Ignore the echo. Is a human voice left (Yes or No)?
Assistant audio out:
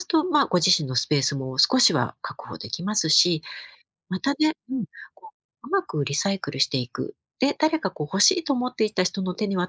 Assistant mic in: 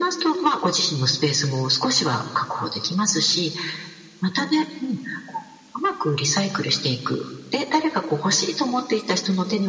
No